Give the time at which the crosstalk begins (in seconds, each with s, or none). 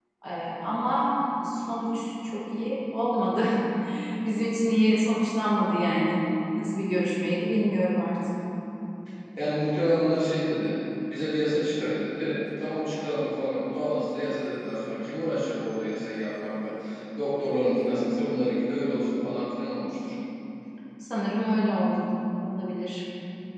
none